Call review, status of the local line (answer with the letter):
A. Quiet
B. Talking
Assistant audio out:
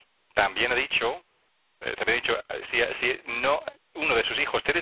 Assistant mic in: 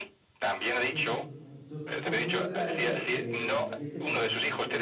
B